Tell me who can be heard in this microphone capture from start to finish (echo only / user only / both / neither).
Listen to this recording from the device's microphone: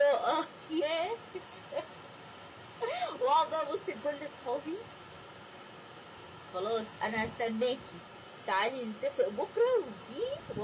echo only